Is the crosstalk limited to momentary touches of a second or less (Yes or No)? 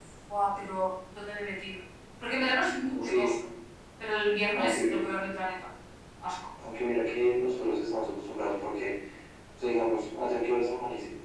Yes